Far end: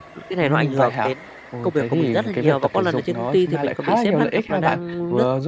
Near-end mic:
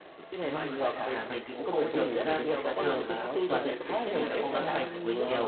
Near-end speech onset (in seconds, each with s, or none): 1.0 s